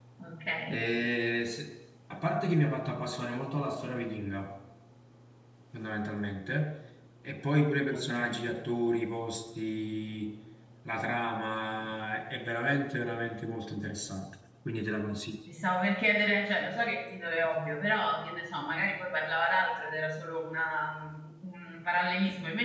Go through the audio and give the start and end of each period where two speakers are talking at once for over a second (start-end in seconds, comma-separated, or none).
none